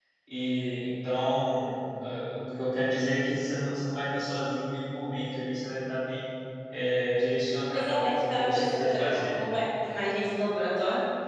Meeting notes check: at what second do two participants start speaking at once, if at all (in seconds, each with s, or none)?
7.7 s